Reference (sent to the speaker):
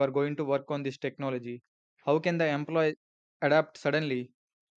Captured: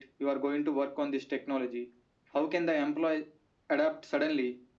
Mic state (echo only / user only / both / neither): echo only